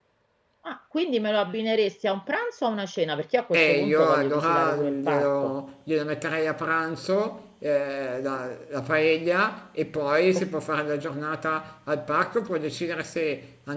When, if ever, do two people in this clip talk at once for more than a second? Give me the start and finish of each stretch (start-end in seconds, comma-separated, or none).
3.5-5.5